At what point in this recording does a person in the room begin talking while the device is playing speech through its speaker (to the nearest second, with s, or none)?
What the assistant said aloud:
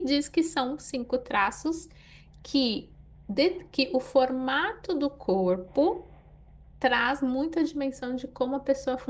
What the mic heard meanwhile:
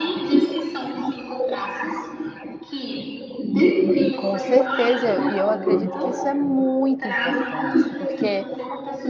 4 s